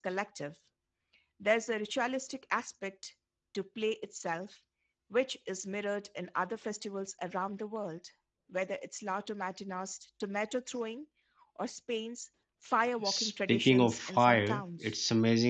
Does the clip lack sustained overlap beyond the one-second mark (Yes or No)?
No